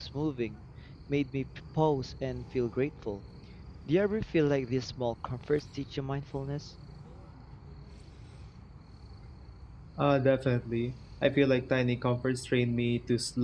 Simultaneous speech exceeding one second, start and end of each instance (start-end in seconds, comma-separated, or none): none